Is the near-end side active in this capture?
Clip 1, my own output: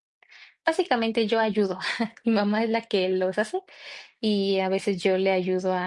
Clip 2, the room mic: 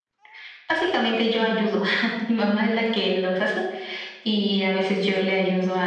No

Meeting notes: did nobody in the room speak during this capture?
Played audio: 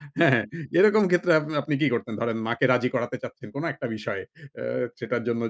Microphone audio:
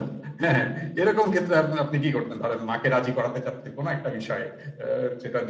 Yes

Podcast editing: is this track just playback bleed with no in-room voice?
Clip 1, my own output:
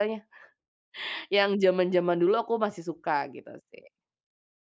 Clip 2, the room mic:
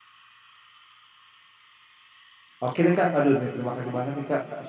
No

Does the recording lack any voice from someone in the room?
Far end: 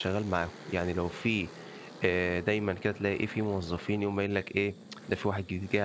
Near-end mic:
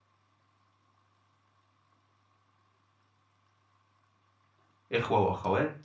No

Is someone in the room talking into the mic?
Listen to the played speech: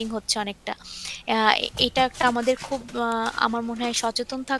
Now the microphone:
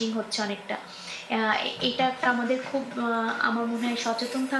No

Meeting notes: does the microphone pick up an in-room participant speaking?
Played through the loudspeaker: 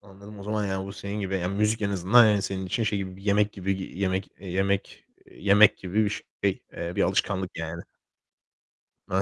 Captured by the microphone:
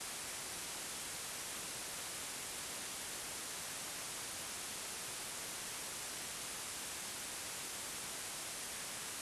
No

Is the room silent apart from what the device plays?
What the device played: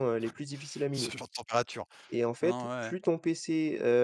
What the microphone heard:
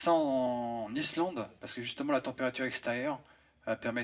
No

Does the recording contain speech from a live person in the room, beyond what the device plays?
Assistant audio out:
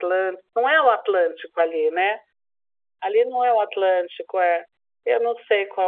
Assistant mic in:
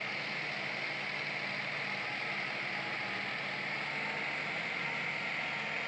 No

